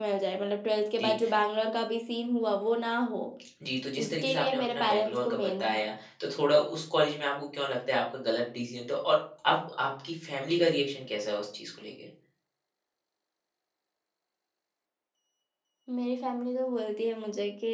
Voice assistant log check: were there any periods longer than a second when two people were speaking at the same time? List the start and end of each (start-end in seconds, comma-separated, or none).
4.0-5.8